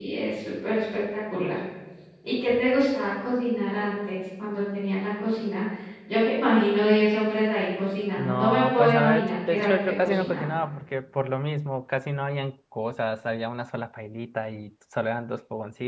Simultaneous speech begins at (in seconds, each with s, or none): 8.2 s